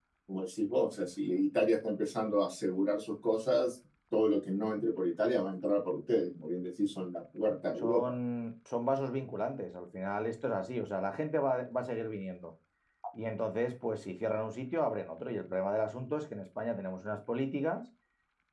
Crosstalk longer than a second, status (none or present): none